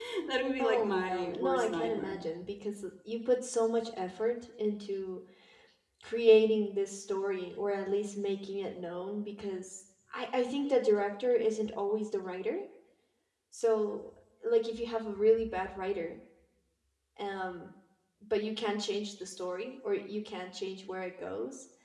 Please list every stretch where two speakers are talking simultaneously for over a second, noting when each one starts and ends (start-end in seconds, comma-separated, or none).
0.6-2.2